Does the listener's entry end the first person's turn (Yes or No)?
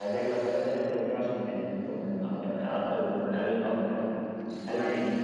No